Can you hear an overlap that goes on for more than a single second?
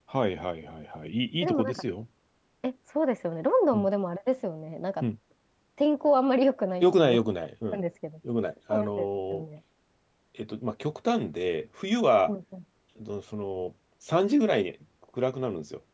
No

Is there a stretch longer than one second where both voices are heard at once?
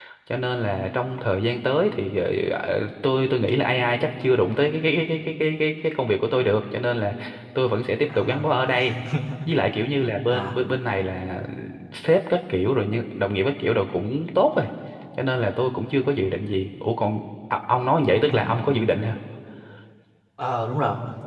No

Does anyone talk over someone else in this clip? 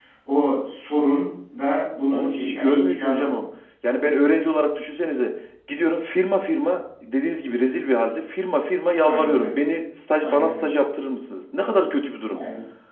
Yes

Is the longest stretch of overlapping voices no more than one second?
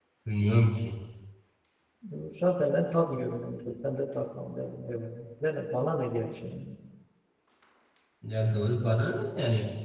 Yes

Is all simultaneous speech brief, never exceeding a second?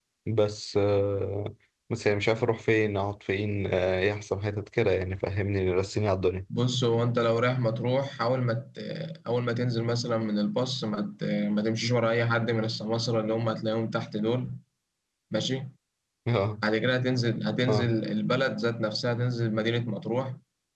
Yes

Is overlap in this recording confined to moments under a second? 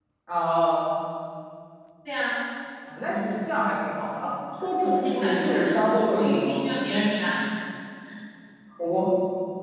No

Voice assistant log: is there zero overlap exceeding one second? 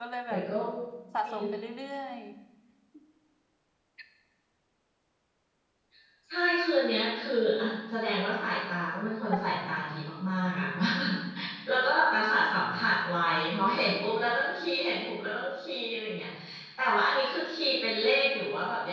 Yes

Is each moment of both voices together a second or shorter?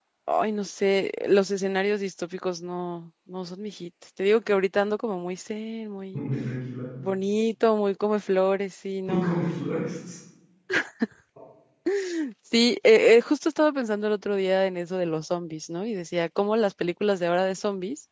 Yes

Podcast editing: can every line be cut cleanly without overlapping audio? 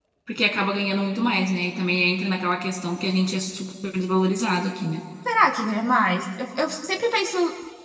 Yes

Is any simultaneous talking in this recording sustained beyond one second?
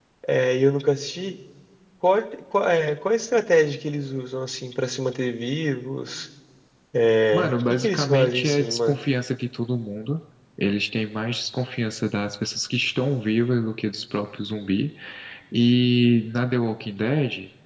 Yes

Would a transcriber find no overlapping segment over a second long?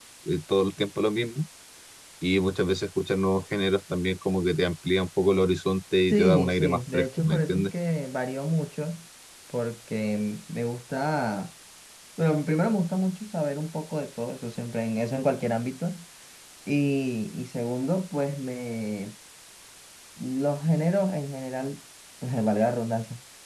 No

